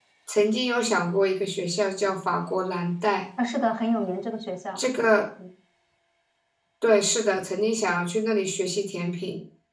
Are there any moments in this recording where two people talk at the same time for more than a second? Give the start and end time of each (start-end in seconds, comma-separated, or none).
none